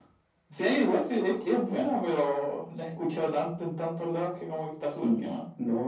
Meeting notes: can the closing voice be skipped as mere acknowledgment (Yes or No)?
No